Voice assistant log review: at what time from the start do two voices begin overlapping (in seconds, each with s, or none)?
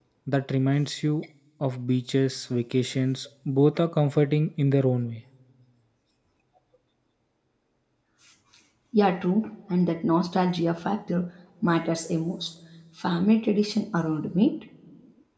none